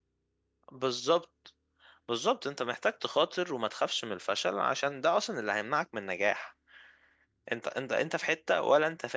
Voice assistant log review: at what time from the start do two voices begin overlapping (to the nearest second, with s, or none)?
none